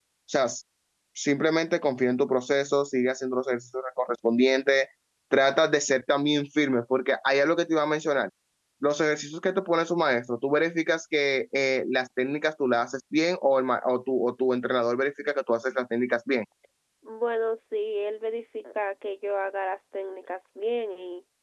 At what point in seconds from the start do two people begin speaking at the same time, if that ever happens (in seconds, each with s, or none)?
none